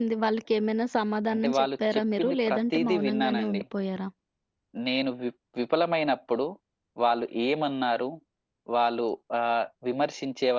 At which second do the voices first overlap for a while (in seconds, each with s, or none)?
1.3 s